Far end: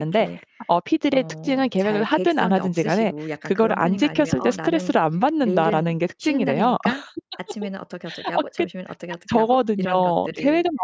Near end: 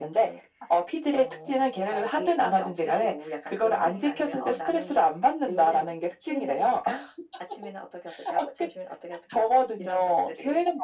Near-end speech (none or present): none